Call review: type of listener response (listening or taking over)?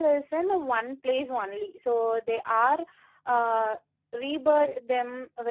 listening